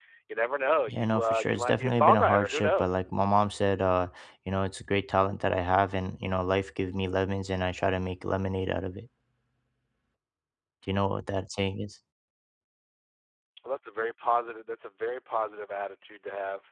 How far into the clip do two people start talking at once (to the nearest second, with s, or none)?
1 s